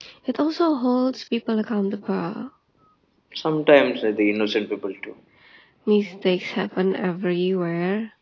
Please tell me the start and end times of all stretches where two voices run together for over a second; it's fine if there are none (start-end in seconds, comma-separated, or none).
none